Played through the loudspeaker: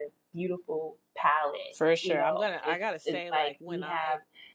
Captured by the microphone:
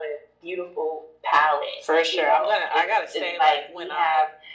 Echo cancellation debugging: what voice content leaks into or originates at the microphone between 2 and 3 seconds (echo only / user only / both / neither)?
echo only